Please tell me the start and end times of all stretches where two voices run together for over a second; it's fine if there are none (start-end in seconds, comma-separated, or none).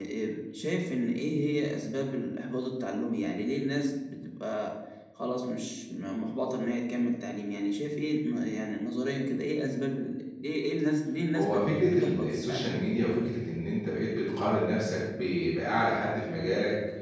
11.3-12.7